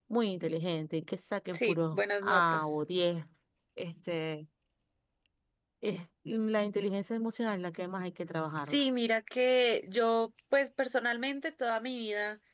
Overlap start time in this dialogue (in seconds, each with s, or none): 1.5 s